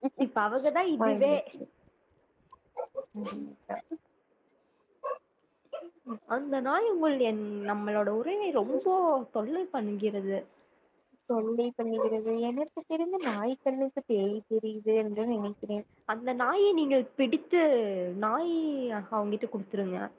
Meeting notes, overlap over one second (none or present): none